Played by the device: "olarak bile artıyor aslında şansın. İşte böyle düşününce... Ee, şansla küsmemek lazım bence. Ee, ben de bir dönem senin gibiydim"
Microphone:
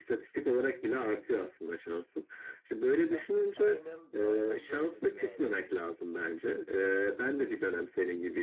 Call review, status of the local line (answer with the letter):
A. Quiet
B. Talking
B